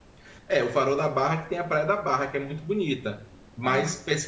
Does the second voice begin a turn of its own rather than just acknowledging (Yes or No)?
No